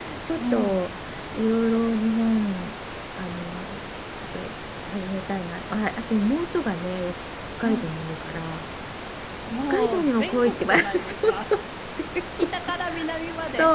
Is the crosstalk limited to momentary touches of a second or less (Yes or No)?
No